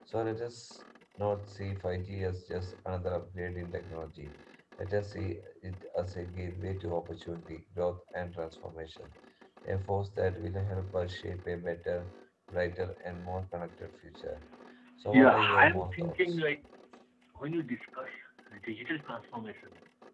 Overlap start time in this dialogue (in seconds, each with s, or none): 15.1 s